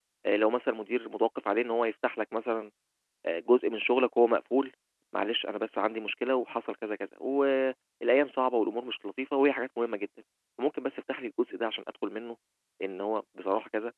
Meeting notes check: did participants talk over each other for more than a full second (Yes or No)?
No